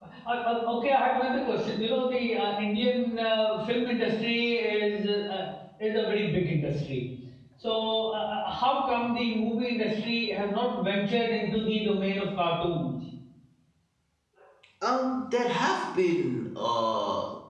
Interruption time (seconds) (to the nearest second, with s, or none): none